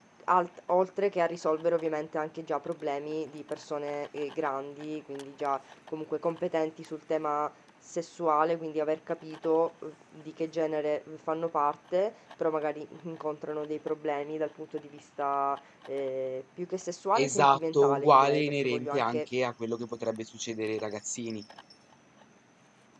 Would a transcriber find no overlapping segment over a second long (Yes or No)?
No